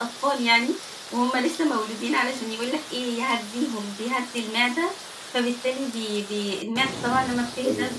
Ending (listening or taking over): listening